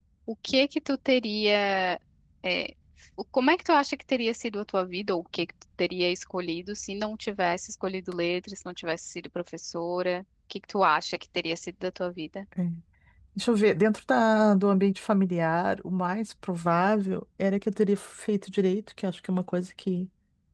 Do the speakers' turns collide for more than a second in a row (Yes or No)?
No